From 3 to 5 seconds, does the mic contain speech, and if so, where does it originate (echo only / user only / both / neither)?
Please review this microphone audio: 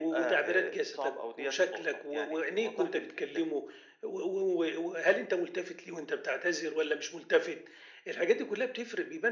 echo only